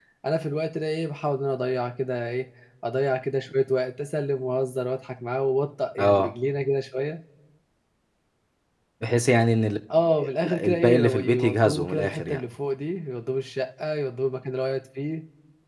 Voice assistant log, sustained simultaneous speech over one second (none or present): present